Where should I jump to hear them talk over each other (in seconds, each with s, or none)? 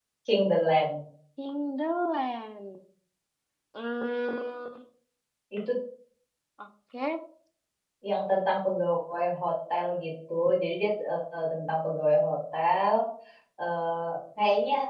none